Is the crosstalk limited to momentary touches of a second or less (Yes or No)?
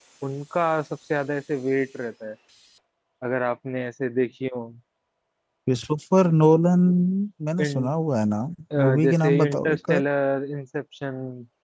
No